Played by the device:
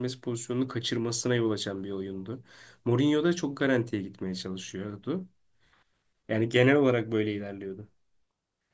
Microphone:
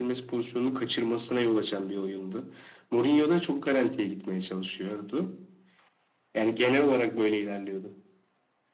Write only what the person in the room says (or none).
none